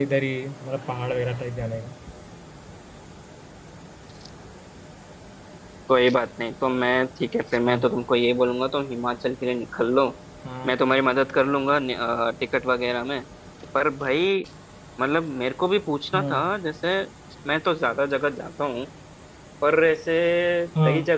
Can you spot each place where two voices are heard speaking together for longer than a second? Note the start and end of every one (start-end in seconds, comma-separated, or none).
none